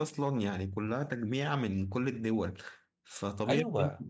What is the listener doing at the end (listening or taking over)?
listening